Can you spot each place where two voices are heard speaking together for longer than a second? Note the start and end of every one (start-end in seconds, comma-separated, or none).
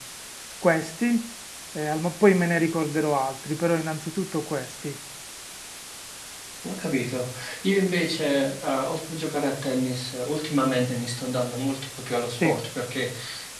none